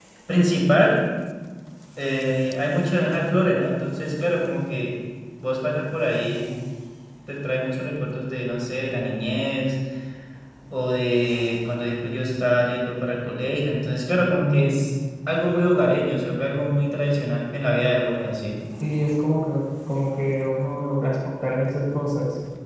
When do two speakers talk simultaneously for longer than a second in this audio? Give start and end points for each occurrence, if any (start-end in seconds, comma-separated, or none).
none